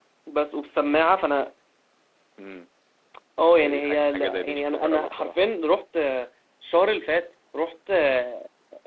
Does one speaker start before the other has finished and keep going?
Yes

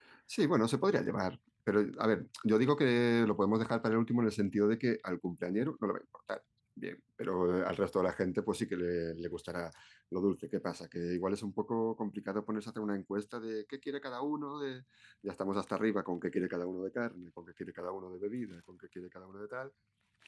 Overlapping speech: No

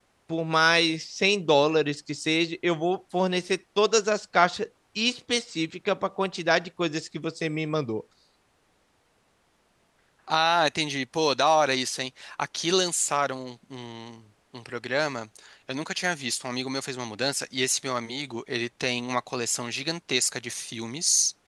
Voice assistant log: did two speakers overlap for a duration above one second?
No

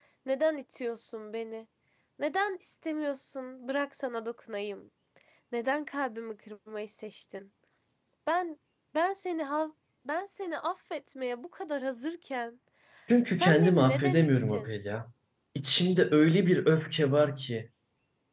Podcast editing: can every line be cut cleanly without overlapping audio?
No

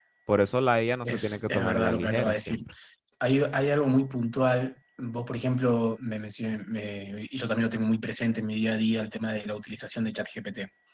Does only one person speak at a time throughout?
No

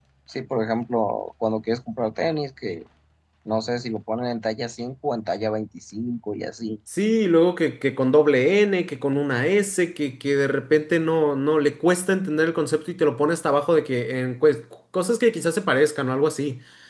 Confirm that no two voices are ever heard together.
Yes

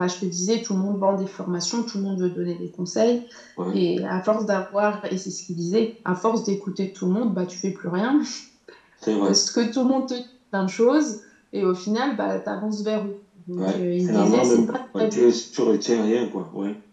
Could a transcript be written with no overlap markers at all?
No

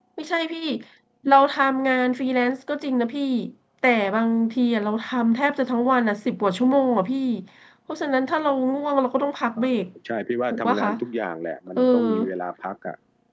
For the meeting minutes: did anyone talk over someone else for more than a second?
No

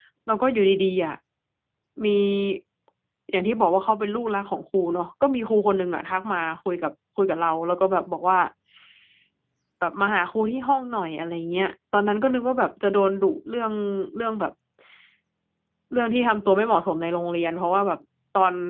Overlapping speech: No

